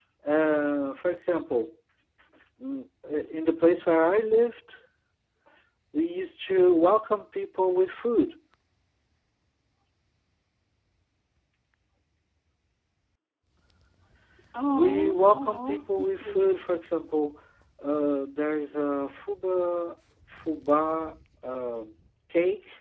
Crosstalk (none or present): present